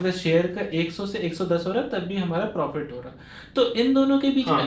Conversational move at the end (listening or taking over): listening